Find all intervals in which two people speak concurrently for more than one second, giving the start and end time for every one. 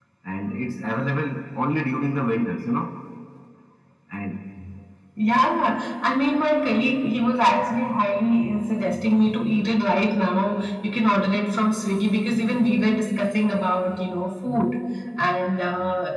none

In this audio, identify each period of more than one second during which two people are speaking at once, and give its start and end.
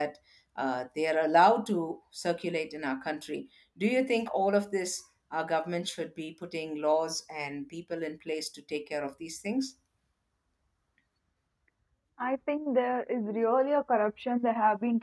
none

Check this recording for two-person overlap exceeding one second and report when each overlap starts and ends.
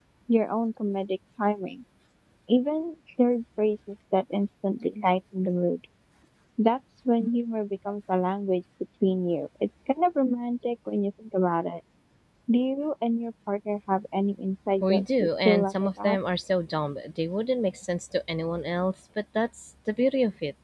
14.8-16.2

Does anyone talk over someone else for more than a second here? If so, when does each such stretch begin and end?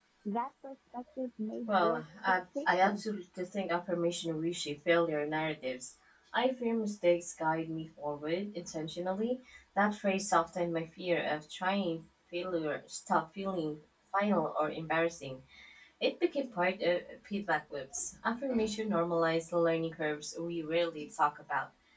1.7-3.0

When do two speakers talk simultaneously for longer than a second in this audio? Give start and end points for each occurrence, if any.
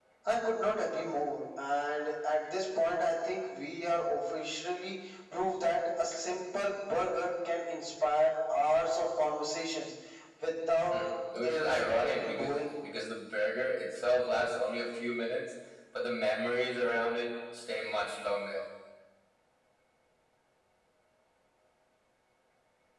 11.4-12.7

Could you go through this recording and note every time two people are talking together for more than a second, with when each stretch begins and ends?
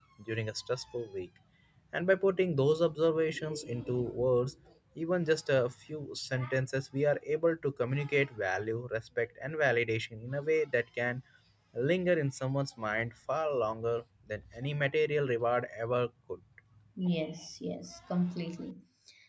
none

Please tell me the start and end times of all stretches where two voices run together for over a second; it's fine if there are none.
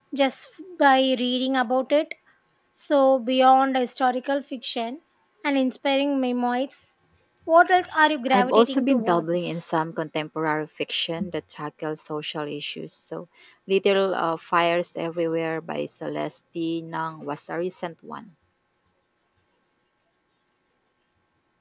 8.3-9.6

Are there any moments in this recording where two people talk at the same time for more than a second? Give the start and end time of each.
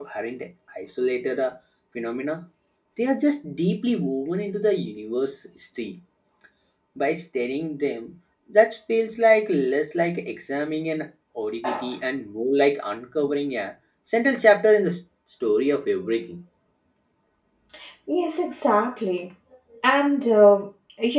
none

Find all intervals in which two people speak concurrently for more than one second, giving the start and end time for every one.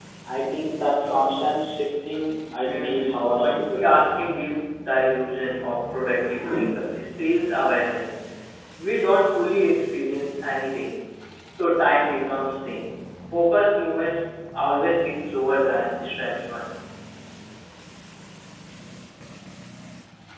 2.6-4.2

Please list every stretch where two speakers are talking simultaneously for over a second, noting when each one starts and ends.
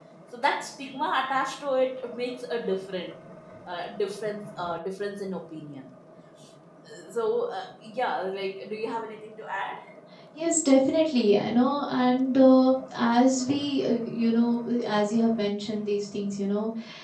none

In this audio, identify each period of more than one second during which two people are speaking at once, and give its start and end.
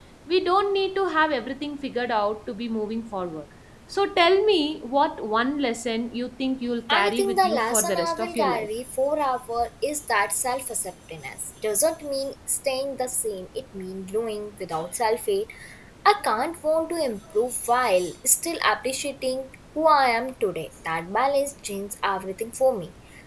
6.9-8.7

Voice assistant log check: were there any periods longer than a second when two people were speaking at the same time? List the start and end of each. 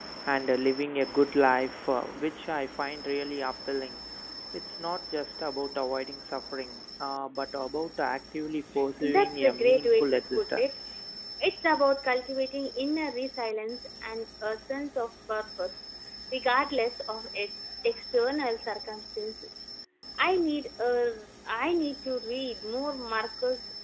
9.0-10.7

